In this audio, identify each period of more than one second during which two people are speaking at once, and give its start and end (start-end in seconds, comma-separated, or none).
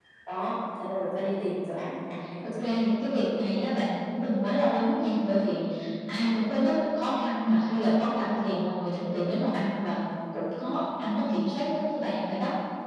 none